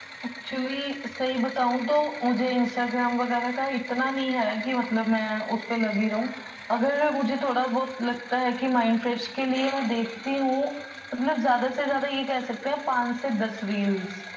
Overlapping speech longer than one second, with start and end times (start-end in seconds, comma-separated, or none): none